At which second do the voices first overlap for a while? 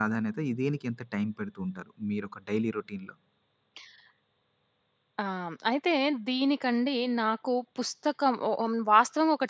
none

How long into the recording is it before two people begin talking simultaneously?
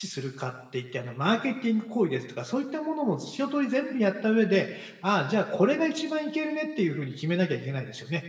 none

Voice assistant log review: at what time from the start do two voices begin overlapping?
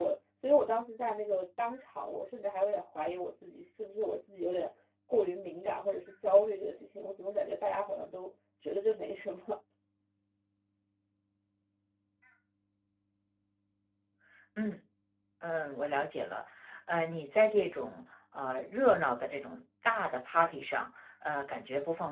none

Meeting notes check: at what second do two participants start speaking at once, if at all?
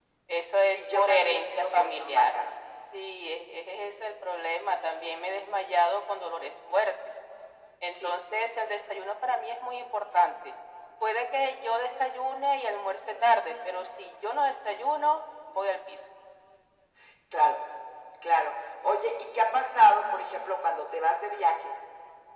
0.7 s

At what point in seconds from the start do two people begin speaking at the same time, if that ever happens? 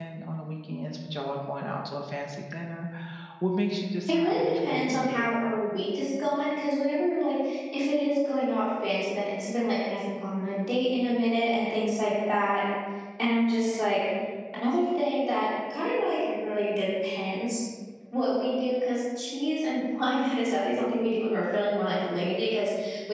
4.1 s

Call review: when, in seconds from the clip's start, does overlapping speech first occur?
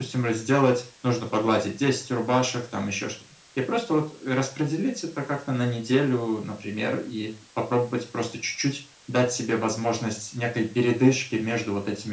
none

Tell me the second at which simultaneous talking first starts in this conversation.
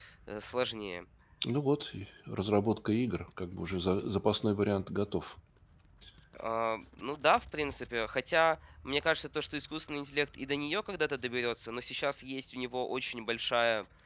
none

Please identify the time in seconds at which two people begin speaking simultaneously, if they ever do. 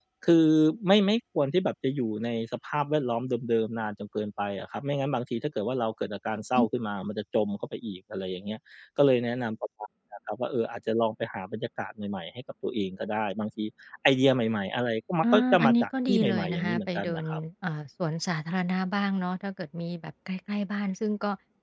15.2 s

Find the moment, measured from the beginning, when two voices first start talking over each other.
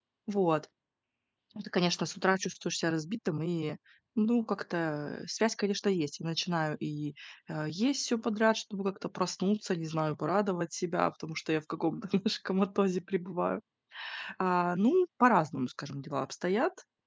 none

